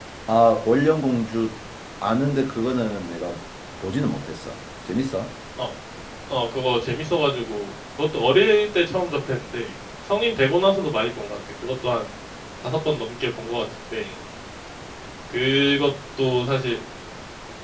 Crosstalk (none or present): none